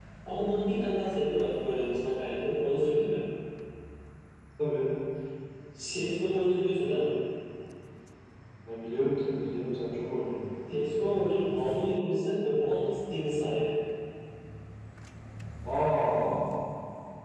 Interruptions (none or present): none